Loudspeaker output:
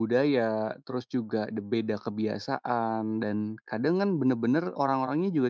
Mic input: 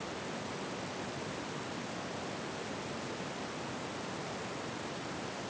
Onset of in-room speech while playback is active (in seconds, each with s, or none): none